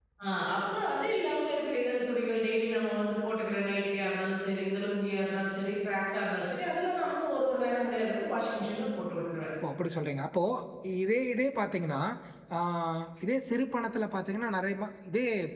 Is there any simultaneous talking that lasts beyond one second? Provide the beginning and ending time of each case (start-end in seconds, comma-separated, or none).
none